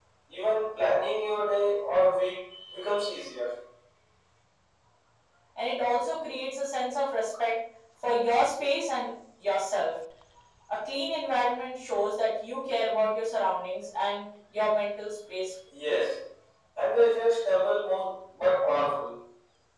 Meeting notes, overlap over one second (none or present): none